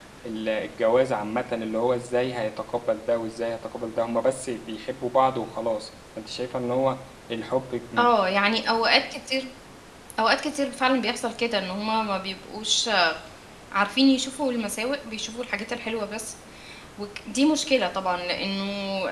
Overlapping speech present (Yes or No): No